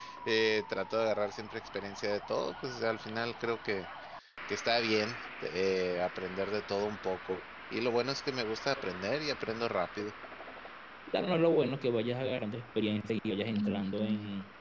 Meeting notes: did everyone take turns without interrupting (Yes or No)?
Yes